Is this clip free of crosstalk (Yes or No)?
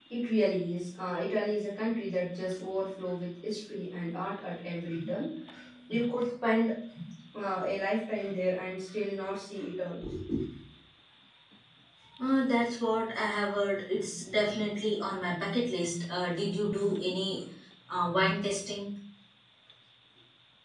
Yes